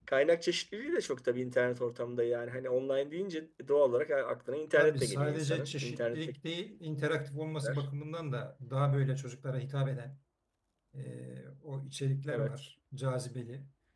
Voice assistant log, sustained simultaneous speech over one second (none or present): present